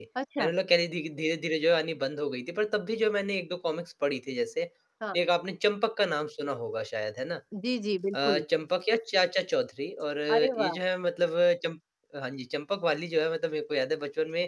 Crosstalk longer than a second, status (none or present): none